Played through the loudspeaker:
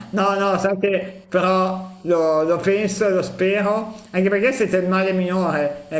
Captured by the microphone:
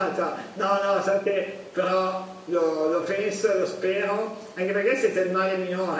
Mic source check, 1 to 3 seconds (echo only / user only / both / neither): echo only